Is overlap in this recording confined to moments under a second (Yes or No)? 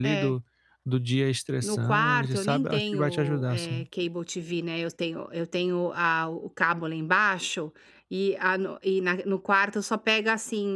No